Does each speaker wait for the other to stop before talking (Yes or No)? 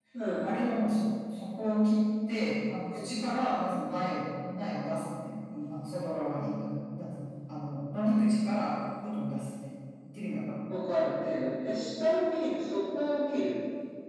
Yes